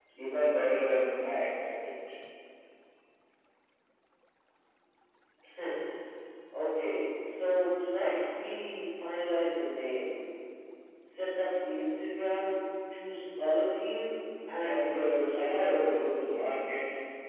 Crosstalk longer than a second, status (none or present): present